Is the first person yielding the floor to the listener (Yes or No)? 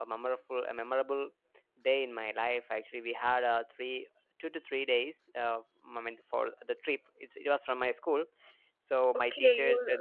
Yes